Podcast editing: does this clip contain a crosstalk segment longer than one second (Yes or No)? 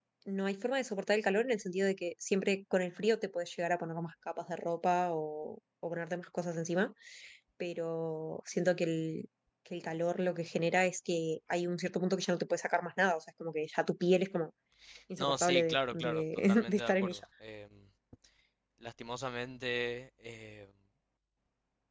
Yes